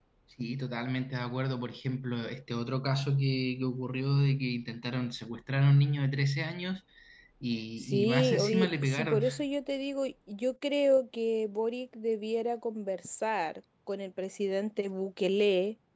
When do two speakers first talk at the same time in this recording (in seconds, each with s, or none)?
7.8 s